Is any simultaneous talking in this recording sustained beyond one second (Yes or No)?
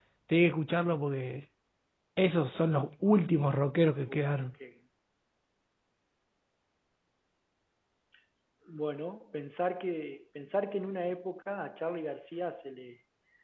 No